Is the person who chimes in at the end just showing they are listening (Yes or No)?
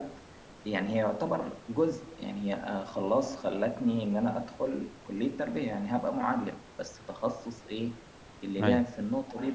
Yes